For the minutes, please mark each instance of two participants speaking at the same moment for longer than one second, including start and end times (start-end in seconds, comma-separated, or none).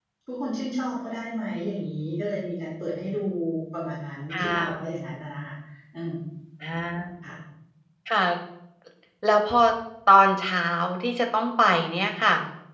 none